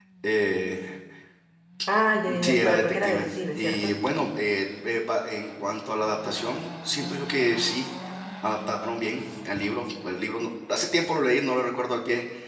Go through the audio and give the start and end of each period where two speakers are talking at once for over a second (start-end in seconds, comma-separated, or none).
2.4-3.9